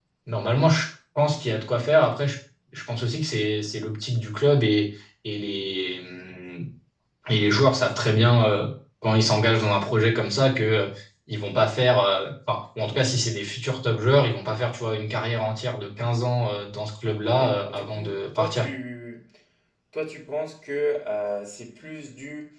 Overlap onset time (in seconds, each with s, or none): 17.3 s